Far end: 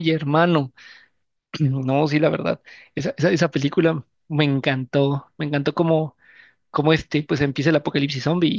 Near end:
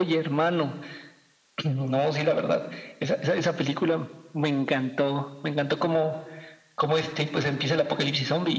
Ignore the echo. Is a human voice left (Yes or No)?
No